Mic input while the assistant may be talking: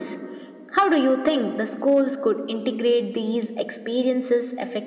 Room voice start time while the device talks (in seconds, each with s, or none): none